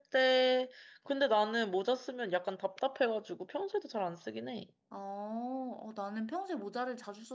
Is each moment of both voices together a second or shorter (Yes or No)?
Yes